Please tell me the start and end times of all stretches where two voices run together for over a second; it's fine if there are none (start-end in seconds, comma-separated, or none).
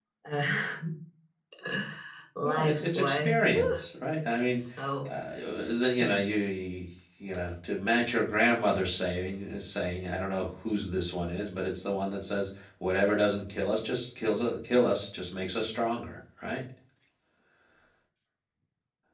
2.5-3.8